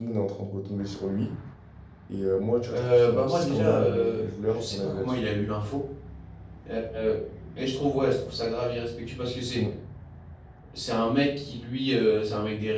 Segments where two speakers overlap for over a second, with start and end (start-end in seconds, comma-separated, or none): 2.7-5.2